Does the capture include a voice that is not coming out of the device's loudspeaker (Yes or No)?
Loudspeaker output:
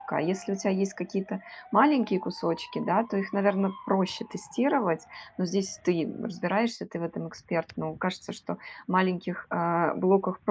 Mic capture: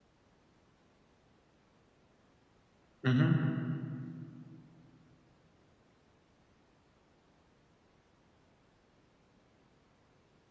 Yes